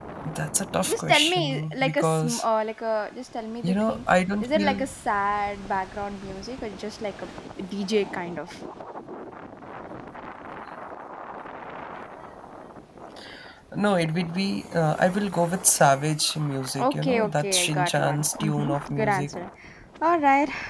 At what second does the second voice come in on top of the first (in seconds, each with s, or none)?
0.9 s